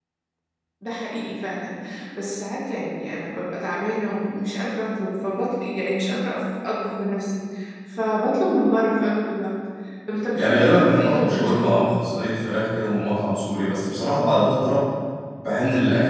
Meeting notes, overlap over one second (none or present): present